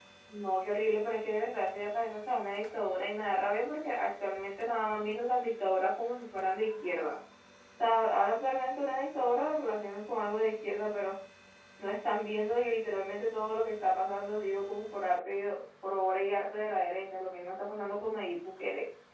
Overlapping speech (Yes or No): No